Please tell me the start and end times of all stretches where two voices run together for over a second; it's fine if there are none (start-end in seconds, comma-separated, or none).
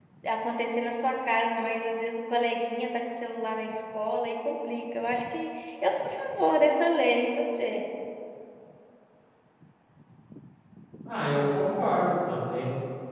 none